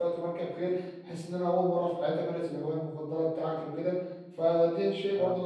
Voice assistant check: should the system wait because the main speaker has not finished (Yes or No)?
Yes